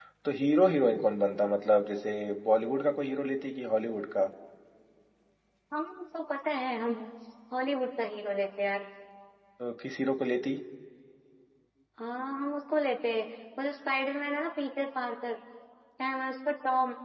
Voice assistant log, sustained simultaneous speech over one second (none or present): none